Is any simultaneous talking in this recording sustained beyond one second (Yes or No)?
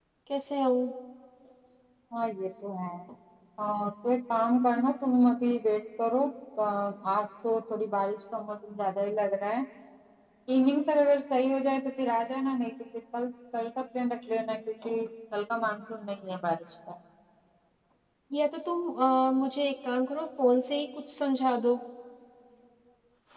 No